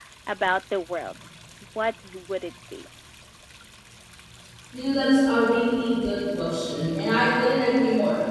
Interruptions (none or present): none